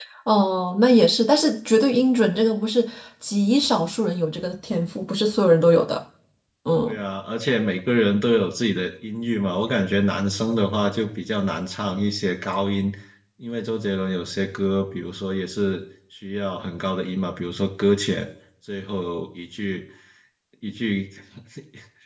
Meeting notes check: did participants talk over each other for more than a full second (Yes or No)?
No